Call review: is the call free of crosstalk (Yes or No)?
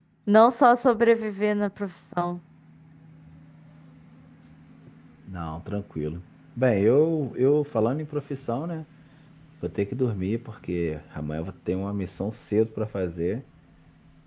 Yes